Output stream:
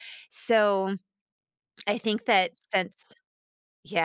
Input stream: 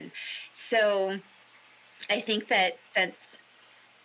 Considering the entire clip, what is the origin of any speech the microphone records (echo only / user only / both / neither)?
echo only